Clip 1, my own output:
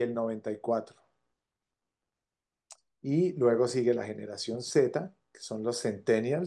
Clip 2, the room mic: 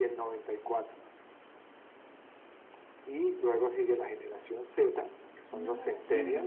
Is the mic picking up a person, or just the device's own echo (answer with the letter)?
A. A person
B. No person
A